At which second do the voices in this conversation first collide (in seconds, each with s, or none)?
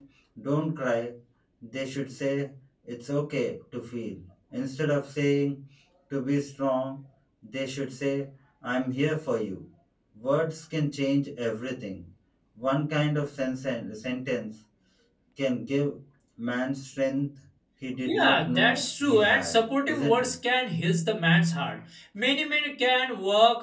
18.0 s